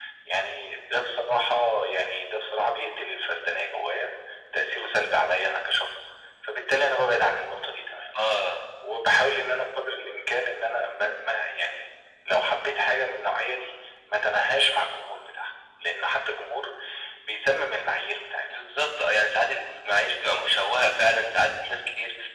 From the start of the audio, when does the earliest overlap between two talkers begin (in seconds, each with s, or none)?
none